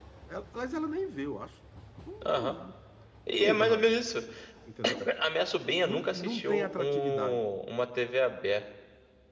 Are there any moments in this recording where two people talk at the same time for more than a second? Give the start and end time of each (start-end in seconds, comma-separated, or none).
5.8-7.4